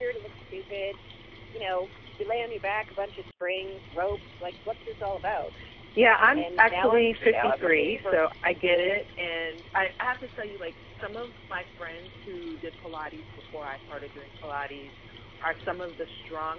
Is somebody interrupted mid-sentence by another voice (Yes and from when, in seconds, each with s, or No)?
Yes, from 6.3 s